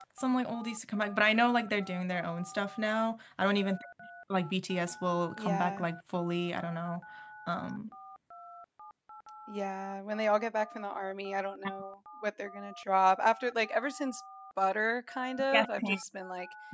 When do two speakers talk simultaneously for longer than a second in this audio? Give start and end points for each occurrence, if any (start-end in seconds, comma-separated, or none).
none